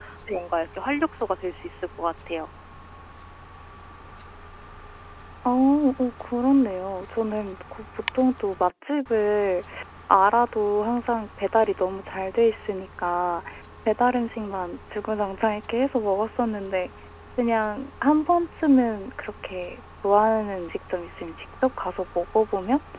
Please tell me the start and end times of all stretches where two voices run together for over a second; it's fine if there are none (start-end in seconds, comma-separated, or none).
none